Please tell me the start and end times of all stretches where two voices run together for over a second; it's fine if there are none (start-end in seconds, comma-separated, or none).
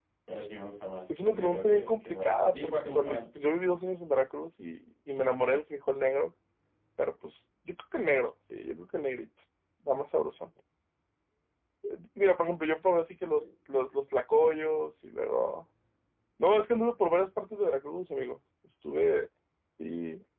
1.2-3.2